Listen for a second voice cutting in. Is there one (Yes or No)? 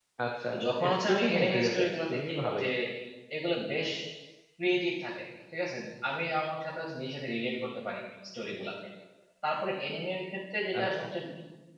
Yes